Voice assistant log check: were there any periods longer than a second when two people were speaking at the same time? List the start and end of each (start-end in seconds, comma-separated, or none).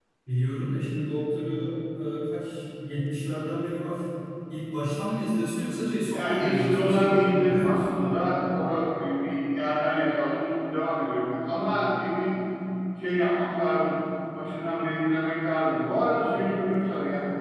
6.1-7.8